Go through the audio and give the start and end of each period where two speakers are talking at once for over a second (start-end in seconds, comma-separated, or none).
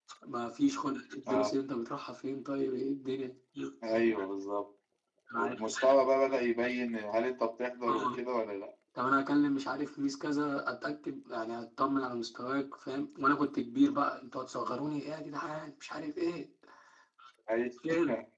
none